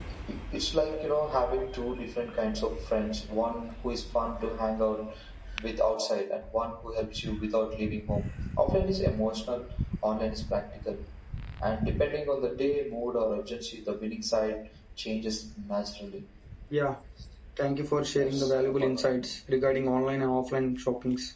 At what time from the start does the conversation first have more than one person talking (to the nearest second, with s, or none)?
18 s